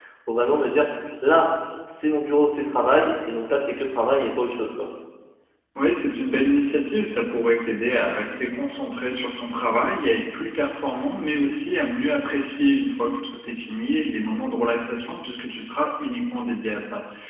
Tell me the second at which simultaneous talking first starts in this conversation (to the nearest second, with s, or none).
none